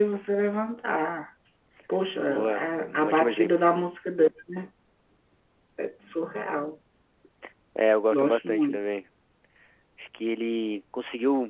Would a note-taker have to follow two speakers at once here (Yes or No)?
Yes